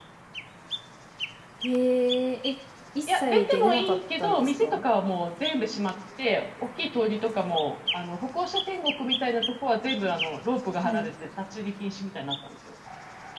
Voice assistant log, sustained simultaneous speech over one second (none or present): present